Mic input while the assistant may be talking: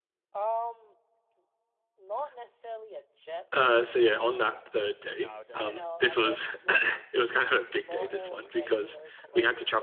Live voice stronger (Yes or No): Yes